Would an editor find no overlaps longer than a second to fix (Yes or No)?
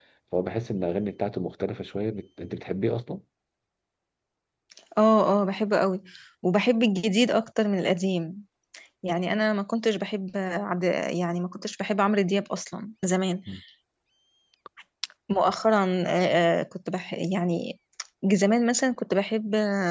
Yes